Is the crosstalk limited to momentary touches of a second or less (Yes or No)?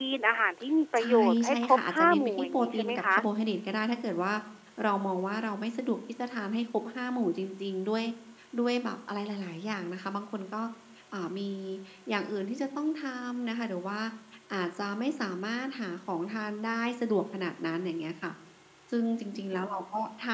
No